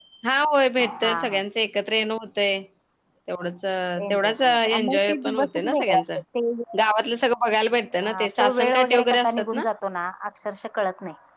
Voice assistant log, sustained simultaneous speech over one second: present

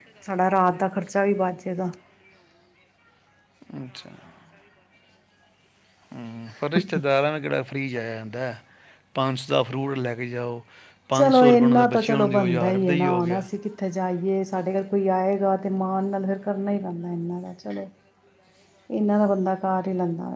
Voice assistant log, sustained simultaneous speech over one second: present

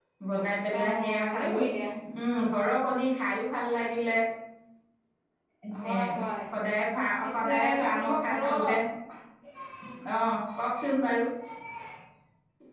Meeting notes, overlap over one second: present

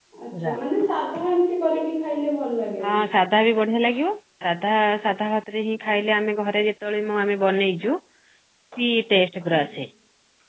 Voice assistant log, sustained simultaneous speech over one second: none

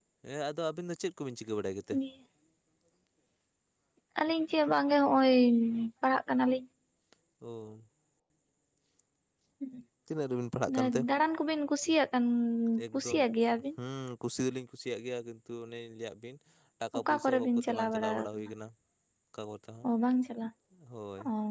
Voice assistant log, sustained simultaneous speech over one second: present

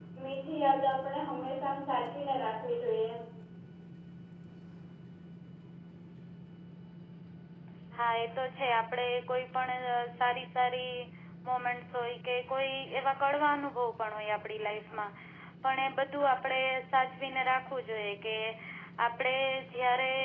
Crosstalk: none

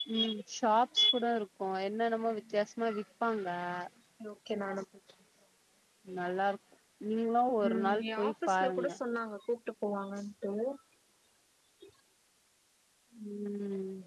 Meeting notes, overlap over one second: present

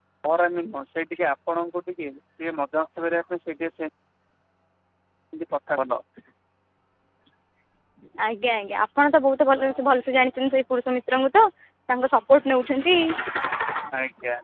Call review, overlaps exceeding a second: none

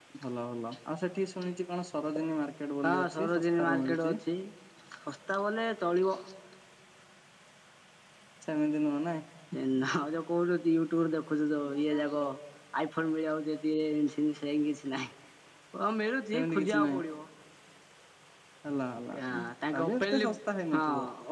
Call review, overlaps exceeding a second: present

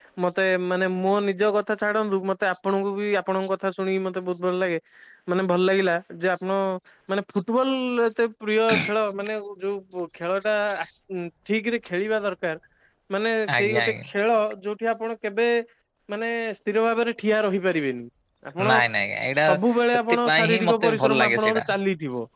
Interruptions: present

